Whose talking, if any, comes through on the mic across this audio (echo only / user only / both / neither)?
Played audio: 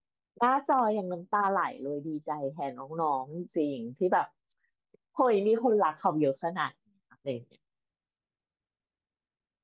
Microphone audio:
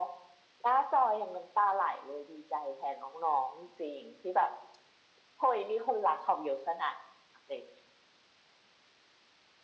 echo only